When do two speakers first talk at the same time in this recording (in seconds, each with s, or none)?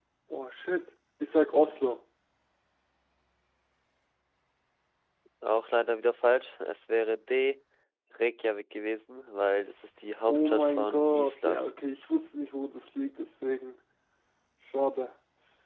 10.3 s